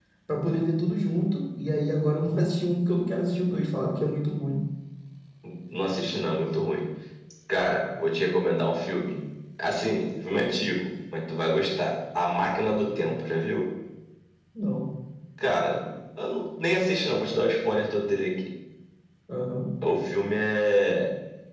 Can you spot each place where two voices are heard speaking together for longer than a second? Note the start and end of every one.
none

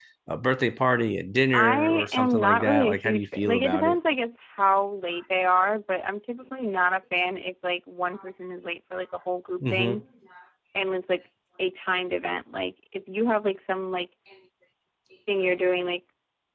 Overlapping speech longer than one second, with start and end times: 1.5-4.0

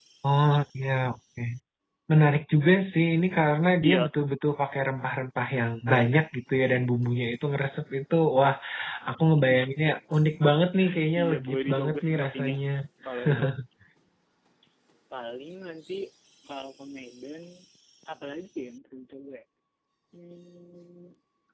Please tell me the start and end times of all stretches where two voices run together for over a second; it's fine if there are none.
11.2-12.5

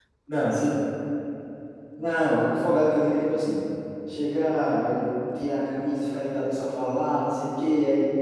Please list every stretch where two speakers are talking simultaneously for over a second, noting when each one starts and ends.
none

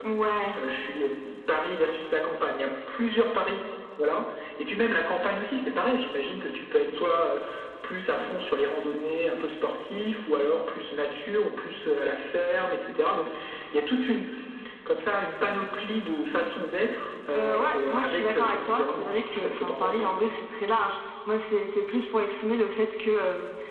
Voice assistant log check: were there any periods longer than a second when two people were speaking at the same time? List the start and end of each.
17.3-20.1

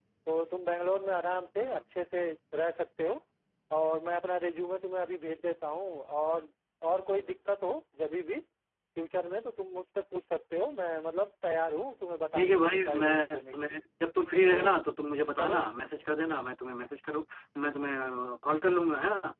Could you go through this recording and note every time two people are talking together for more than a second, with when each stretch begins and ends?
12.3-13.8

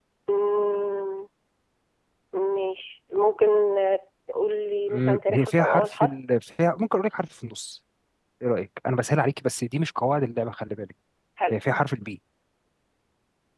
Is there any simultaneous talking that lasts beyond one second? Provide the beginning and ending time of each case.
4.9-6.1

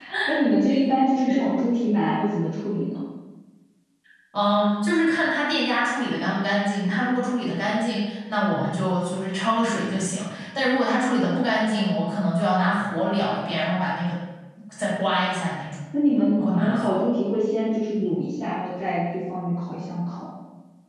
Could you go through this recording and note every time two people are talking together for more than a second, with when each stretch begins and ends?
none

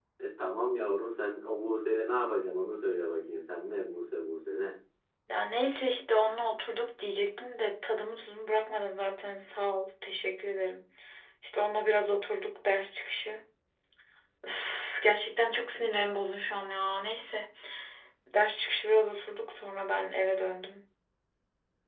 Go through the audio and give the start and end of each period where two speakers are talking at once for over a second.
none

